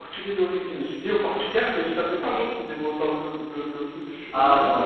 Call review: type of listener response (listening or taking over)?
taking over